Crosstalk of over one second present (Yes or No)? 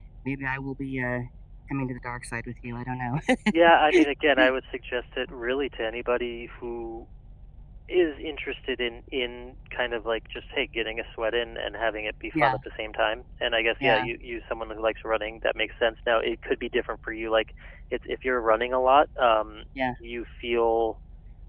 No